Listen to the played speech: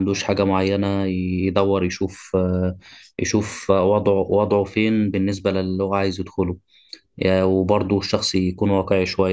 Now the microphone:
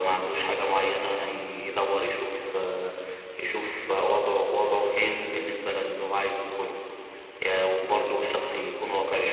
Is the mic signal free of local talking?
Yes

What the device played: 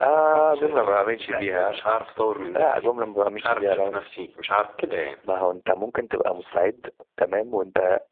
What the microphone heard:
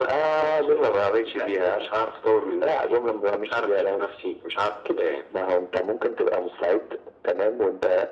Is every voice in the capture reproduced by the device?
Yes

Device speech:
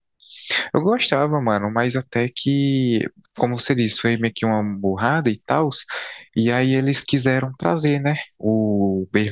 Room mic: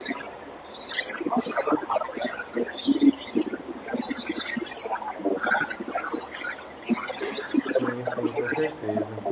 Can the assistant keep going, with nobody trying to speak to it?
No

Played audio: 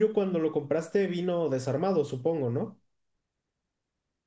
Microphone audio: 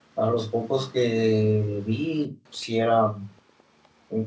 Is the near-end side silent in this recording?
No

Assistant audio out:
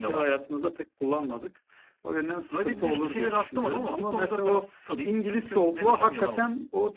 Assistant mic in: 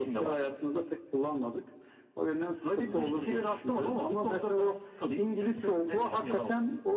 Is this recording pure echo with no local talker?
Yes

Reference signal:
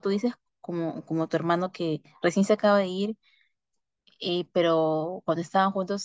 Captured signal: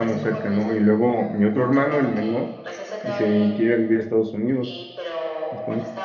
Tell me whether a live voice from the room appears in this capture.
Yes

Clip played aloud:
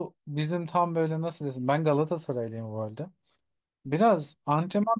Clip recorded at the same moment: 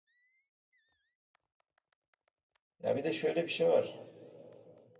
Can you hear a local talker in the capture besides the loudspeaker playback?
Yes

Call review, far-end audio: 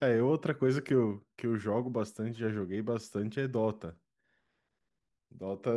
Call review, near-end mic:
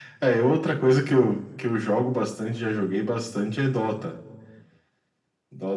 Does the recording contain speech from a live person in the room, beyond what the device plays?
No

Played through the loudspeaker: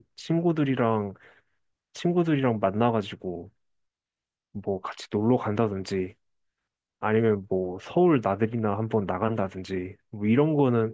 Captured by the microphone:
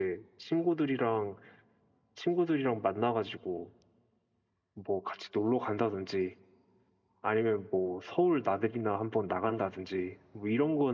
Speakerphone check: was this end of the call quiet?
Yes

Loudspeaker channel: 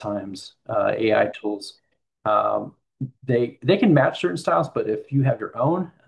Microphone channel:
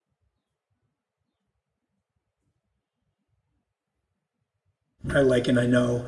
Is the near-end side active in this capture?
Yes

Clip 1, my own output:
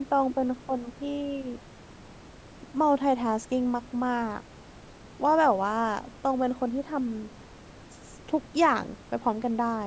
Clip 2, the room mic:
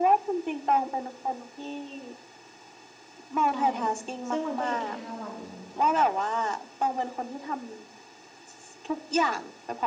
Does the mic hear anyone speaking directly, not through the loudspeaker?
Yes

